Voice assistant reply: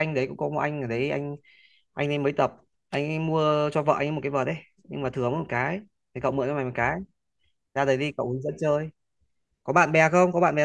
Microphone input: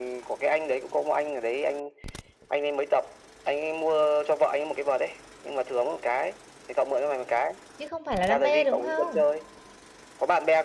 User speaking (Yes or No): Yes